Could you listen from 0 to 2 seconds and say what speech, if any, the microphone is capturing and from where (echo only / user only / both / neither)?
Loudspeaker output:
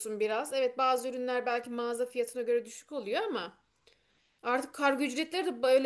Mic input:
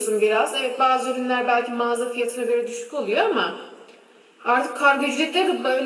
echo only